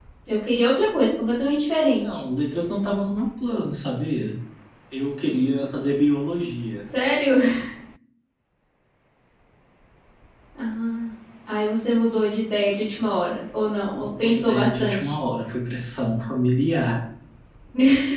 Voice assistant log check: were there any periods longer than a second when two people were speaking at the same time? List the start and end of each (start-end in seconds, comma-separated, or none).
13.9-15.2